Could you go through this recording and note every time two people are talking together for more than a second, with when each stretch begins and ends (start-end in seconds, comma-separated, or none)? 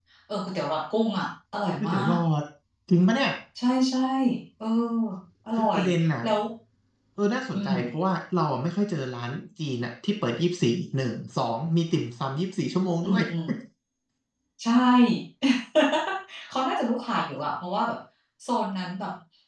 none